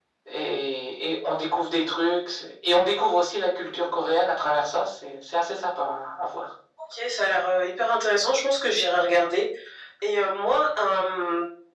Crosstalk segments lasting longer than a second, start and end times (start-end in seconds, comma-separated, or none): none